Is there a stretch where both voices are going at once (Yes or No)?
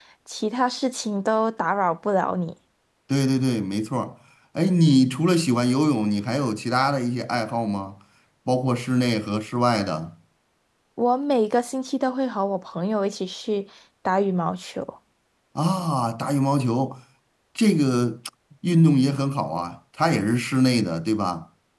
No